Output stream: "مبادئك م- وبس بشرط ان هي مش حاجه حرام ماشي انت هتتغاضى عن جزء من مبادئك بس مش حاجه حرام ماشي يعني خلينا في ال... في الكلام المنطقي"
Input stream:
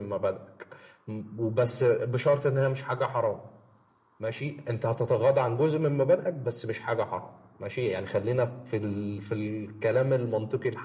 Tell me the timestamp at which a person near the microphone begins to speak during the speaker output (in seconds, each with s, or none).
none